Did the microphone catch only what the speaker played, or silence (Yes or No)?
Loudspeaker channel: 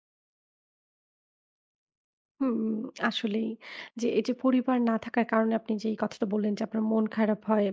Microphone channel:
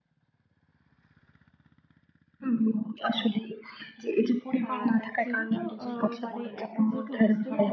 No